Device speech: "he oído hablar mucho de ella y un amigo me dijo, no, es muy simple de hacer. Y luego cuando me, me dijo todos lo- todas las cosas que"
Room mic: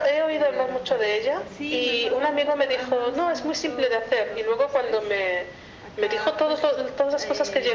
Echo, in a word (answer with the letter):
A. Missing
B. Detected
B